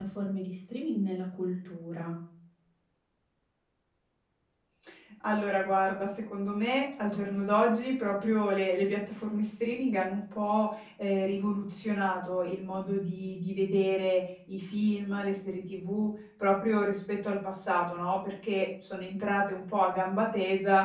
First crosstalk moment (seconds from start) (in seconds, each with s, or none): none